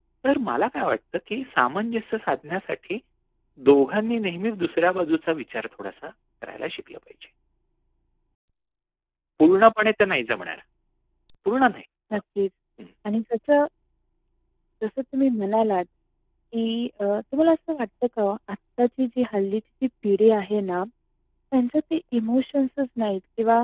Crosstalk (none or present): none